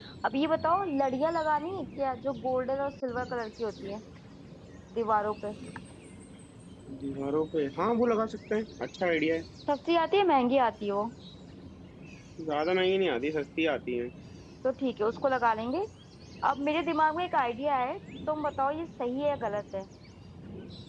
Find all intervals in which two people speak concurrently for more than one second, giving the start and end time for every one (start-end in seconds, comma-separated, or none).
none